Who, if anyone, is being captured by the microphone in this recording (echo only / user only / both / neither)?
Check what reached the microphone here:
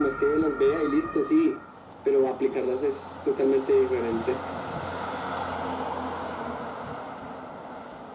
echo only